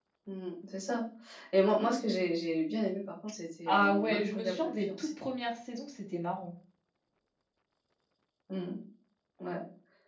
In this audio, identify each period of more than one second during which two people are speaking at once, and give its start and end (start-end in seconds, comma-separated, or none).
3.7-5.1